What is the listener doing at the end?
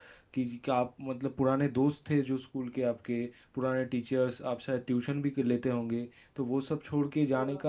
listening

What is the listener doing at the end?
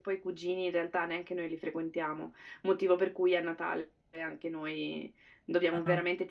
listening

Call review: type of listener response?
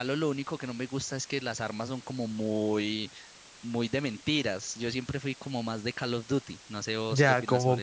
taking over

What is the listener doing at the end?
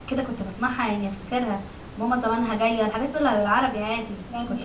taking over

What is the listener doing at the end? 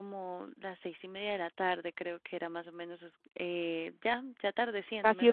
taking over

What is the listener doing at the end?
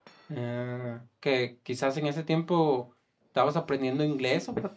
taking over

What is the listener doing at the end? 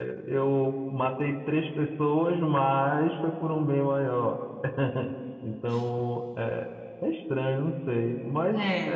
listening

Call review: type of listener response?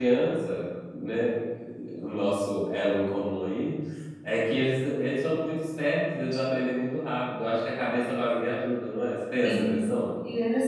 taking over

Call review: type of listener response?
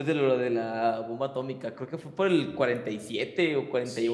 taking over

